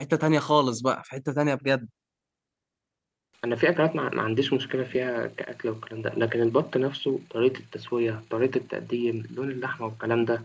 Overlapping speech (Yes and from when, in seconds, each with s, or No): No